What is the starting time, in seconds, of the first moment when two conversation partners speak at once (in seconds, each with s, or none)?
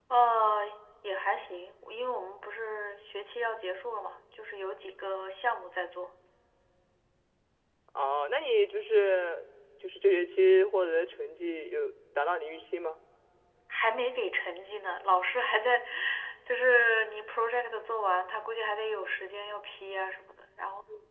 none